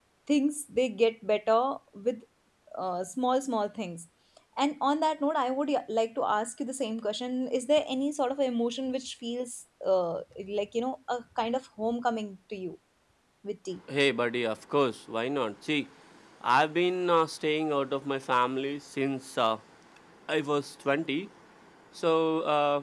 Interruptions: none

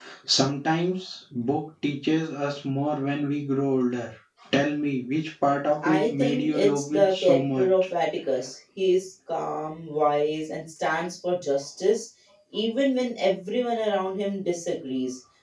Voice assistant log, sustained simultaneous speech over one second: present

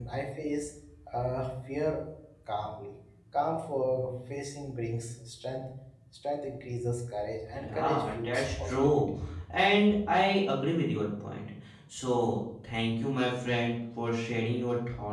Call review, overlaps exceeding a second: present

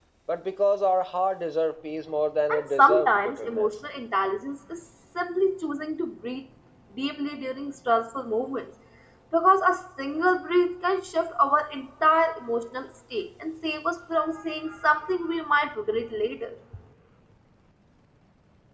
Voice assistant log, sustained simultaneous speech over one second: present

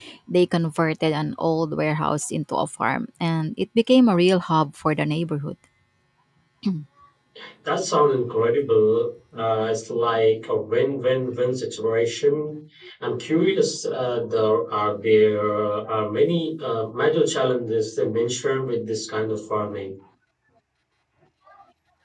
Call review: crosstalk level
none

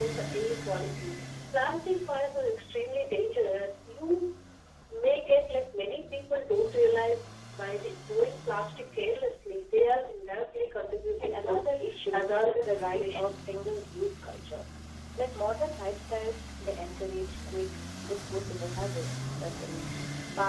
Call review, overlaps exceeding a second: present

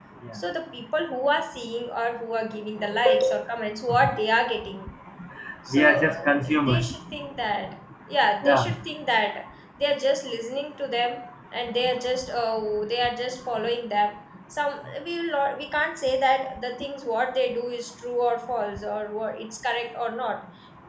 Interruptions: present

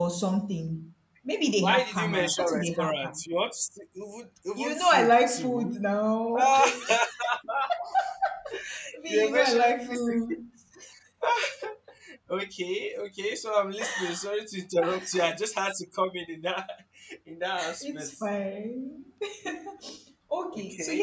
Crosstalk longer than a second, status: present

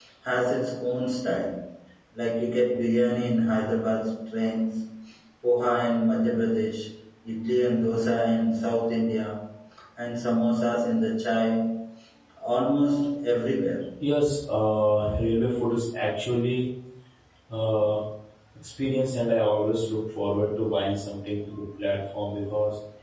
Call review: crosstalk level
none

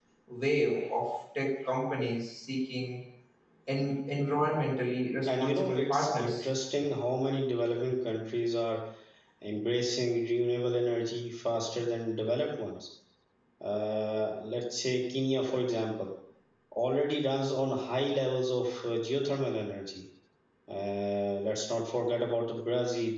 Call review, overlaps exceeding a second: present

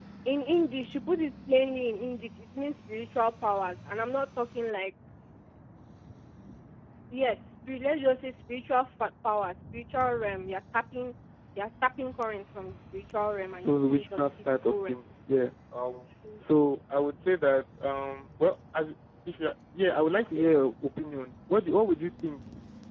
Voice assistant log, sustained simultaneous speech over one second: present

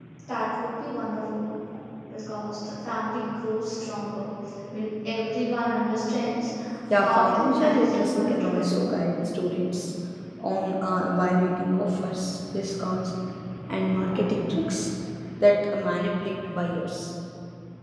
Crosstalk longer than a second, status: present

